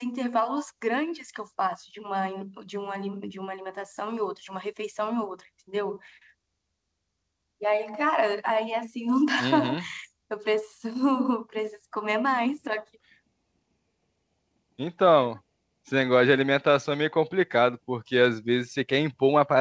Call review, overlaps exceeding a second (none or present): none